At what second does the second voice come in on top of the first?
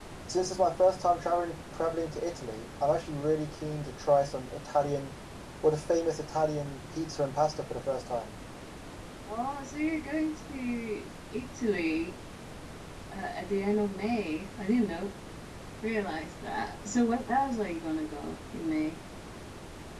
none

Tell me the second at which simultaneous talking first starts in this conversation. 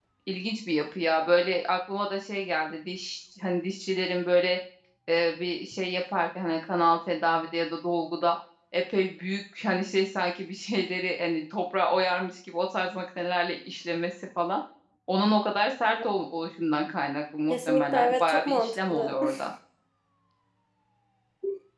17.5 s

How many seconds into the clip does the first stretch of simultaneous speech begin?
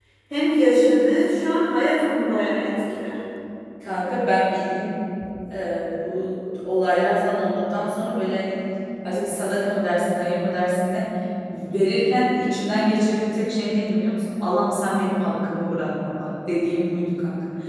none

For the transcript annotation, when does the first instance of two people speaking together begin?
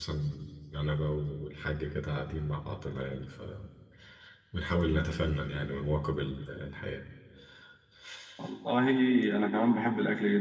none

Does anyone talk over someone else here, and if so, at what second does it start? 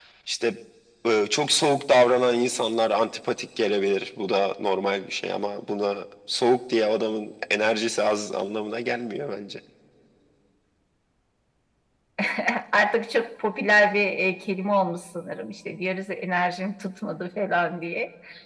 none

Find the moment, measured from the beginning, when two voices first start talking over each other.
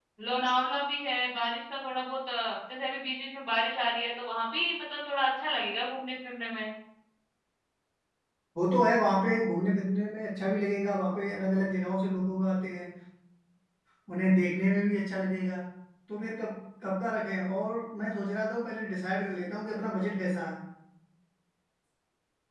none

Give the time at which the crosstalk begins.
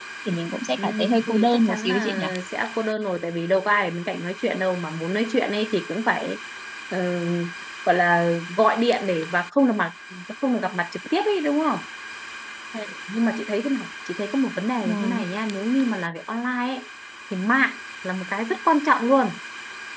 0.8 s

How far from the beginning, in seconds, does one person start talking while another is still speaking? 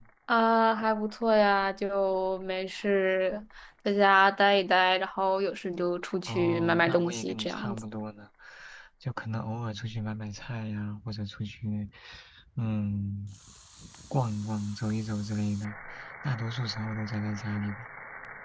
6.3 s

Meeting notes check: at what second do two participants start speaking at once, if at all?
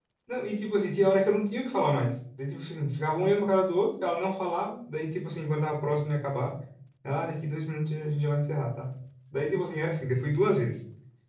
none

